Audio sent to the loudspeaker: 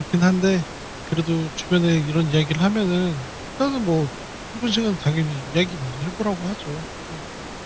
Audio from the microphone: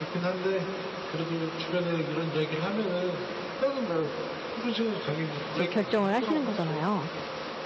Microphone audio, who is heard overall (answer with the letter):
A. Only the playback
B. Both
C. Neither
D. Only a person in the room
B